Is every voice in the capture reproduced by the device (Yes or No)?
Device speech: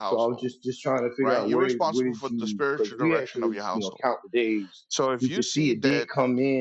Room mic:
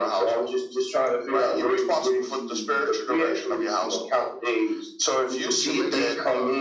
No